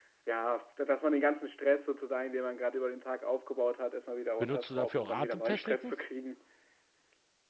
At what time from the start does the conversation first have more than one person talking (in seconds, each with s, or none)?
4.4 s